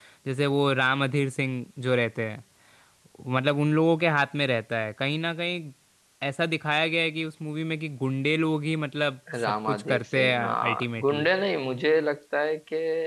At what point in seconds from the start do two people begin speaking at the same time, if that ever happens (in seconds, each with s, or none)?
9.3 s